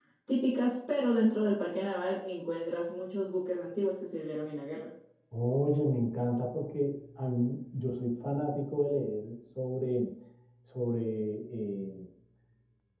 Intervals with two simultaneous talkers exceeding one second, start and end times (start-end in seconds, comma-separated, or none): none